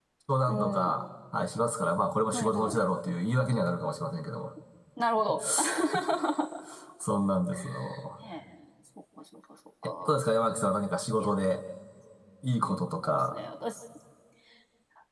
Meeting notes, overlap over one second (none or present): none